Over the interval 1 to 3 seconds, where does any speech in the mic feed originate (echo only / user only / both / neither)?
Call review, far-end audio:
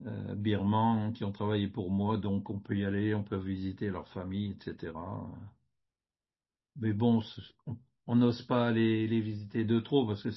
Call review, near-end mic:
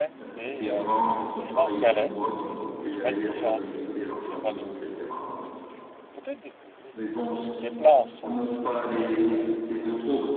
both